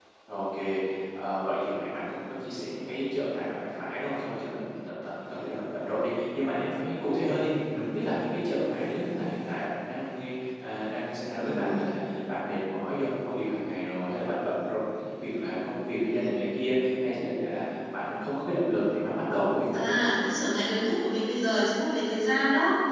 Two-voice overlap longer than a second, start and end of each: none

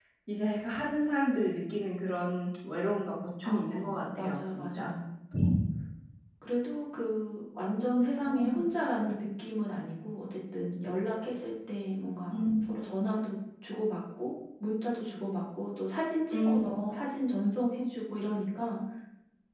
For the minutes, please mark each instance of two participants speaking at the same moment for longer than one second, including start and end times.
3.4-4.9

